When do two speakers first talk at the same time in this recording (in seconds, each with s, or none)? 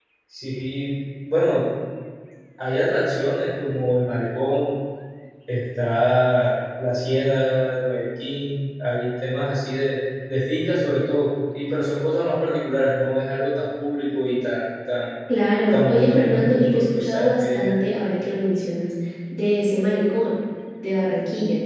15.7 s